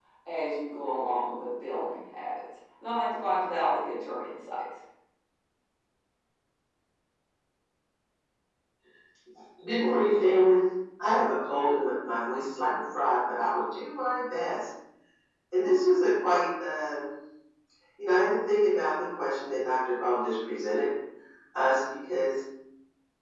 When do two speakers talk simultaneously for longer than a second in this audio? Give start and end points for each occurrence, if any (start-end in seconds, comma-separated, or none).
none